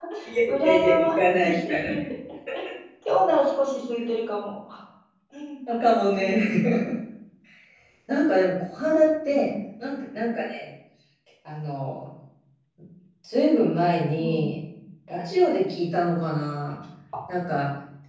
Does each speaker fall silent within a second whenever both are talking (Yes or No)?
No